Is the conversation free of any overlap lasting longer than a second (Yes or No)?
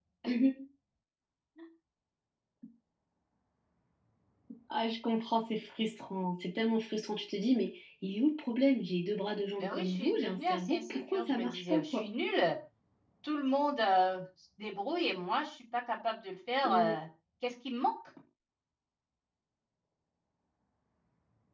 No